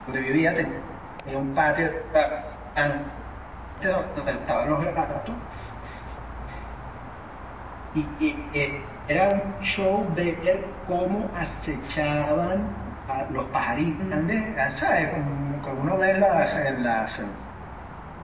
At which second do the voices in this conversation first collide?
none

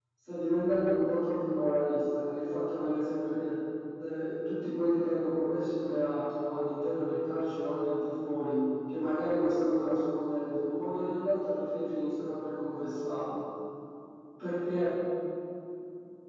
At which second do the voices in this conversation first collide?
none

